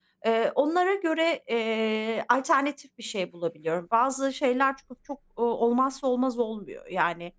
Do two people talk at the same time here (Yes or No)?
No